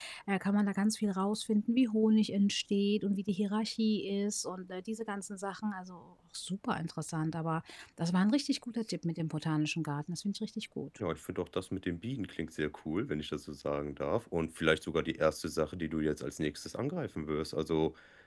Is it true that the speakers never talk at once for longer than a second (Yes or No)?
Yes